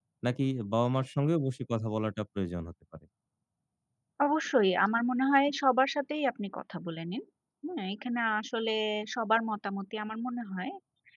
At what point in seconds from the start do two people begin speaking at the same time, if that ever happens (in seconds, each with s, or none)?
none